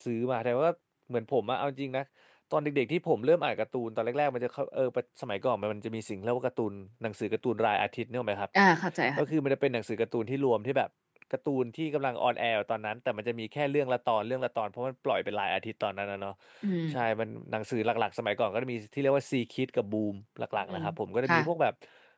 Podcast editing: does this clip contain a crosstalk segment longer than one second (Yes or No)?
No